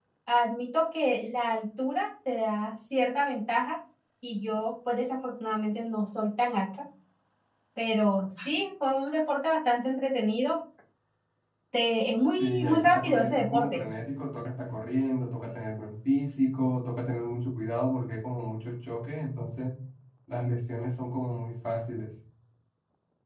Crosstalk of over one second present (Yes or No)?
Yes